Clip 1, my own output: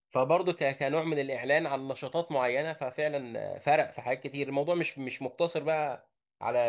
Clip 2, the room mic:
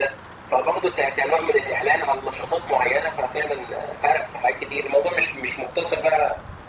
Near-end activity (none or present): none